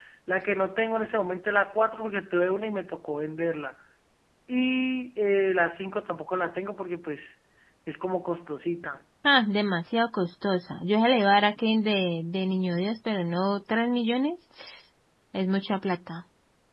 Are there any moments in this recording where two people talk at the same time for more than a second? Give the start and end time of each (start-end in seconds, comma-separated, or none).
none